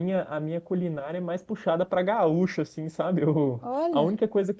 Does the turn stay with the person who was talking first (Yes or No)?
Yes